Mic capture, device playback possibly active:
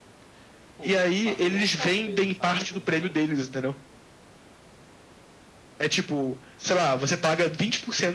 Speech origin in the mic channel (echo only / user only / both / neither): both